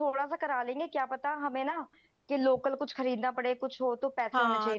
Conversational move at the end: taking over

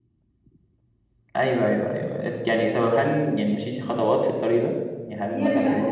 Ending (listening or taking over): taking over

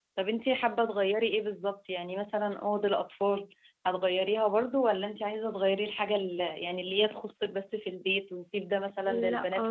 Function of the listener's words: taking over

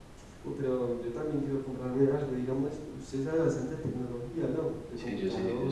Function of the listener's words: taking over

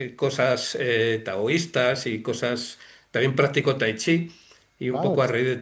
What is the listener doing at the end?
listening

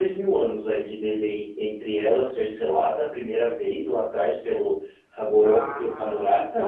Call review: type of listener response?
taking over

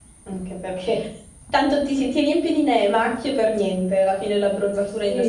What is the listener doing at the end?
taking over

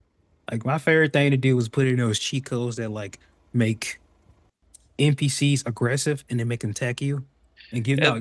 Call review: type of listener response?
listening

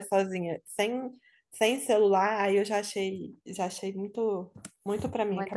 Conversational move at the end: taking over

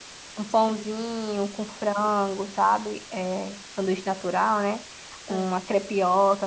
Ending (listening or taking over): listening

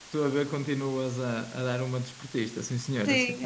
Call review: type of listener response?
taking over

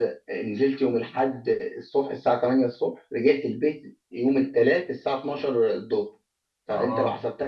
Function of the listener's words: listening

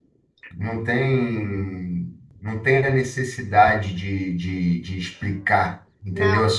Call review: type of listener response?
taking over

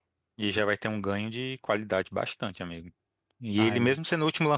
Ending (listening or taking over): listening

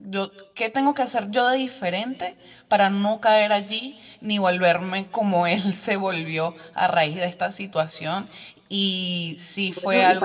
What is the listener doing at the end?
taking over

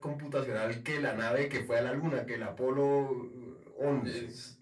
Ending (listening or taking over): taking over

